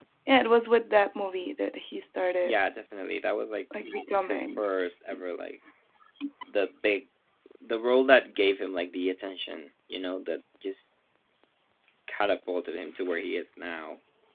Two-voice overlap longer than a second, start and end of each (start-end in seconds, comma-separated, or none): none